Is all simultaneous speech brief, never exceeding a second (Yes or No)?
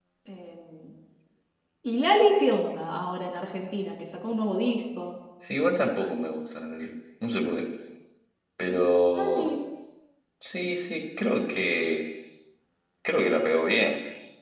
Yes